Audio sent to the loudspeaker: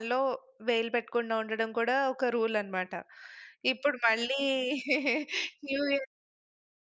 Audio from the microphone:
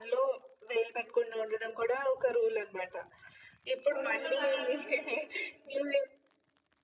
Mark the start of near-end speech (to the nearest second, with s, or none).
4 s